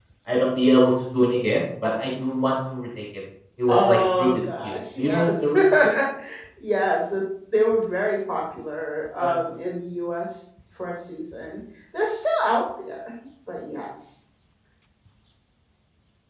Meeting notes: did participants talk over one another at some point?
Yes, from 3.7 s

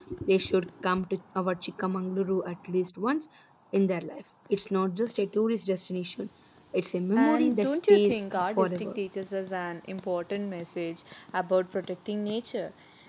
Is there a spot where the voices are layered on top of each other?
Yes, from 7.2 s

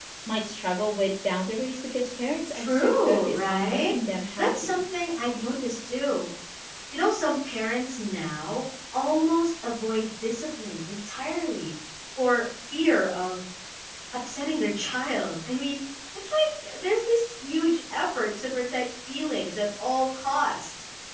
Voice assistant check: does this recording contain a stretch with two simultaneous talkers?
Yes, from 2.5 s

